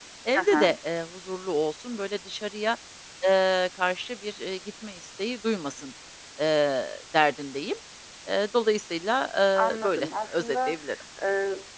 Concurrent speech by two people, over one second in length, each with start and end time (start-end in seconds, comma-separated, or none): 9.6-10.8